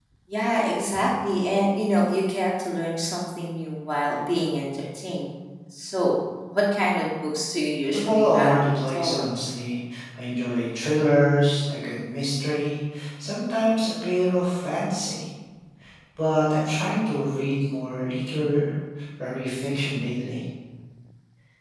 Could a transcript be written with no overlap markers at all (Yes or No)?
No